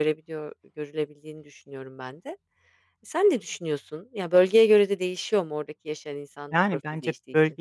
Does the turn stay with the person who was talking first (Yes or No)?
No